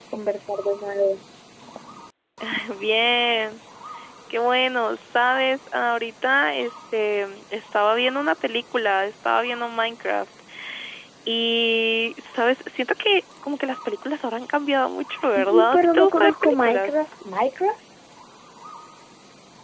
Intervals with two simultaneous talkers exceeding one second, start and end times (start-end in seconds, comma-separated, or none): 15.2-16.9